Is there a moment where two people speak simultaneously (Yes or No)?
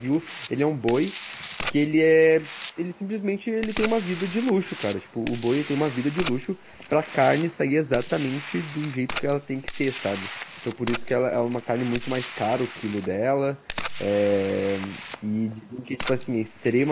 No